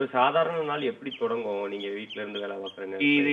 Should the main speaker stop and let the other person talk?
Yes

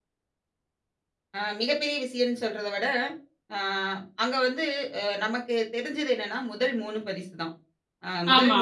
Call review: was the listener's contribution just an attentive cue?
Yes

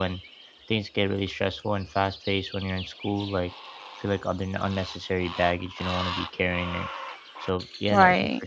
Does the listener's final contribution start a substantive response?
No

